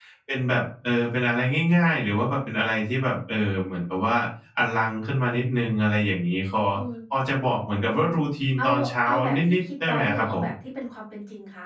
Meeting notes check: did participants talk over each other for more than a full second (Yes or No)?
Yes